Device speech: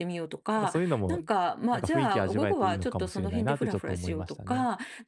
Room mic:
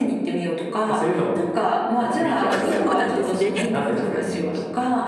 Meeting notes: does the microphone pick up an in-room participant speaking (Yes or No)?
Yes